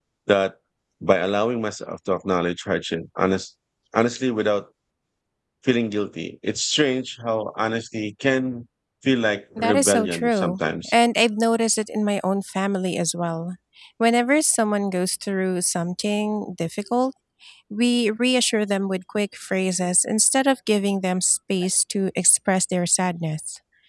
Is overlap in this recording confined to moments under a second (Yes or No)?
No